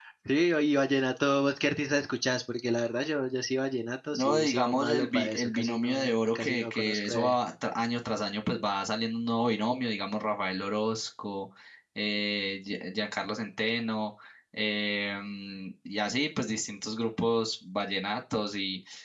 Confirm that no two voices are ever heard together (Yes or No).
No